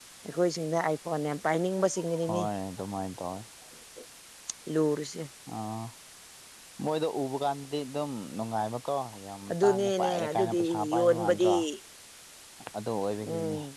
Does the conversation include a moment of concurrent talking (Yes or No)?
Yes